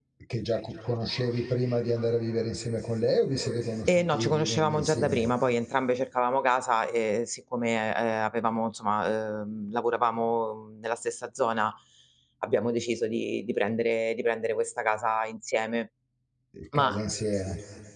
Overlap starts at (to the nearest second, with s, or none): 4 s